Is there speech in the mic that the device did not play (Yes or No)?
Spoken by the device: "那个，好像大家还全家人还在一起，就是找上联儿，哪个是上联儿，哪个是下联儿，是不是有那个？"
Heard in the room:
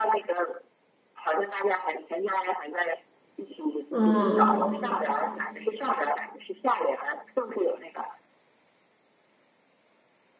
Yes